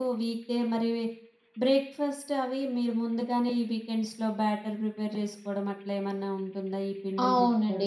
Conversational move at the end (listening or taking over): taking over